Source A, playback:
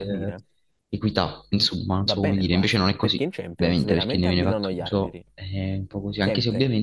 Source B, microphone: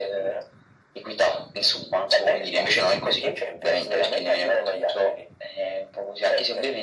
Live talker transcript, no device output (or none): none